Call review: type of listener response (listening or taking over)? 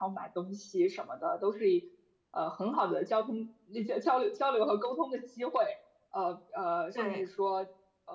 listening